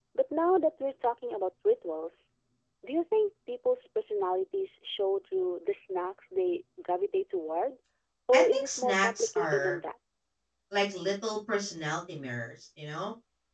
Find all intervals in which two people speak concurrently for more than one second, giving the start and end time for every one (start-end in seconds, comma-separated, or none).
8.3-9.8